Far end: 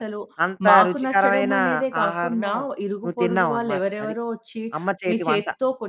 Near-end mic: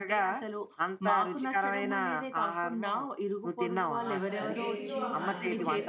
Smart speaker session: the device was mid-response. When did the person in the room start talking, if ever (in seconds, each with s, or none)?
4.0 s